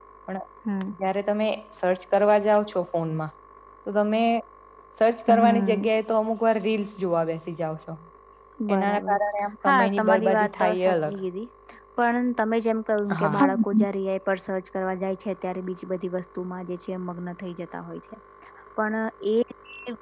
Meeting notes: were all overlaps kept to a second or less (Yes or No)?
No